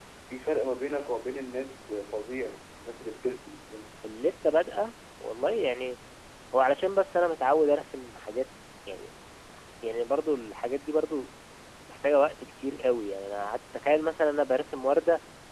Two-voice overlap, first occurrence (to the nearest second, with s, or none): none